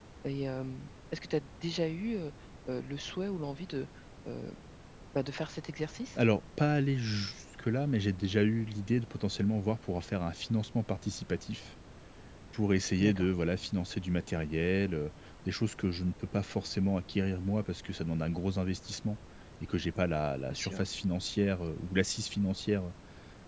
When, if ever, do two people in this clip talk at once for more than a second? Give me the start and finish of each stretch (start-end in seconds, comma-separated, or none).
none